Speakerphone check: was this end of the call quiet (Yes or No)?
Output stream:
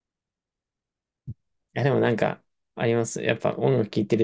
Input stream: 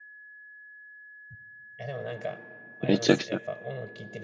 No